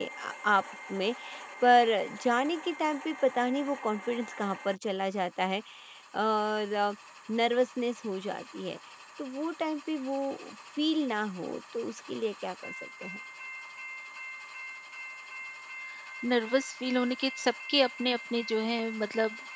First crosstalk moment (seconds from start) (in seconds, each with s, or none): none